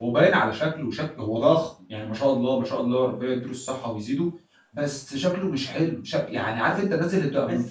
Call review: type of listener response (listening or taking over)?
listening